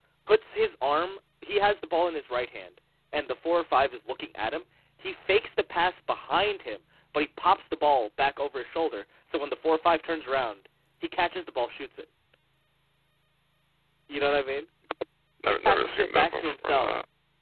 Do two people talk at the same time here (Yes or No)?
Yes